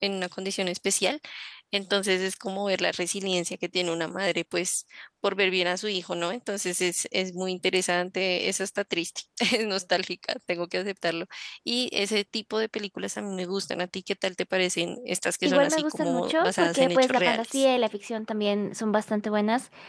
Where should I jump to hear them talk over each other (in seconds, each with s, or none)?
15.4 s